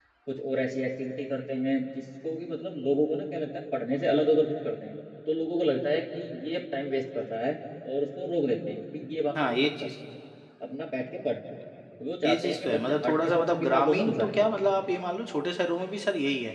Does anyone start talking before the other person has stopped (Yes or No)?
Yes